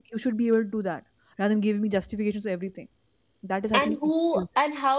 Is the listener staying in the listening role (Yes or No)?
No